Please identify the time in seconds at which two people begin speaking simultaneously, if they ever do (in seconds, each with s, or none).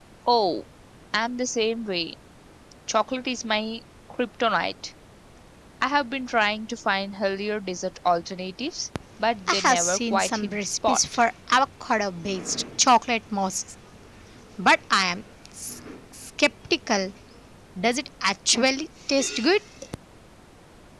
9.5 s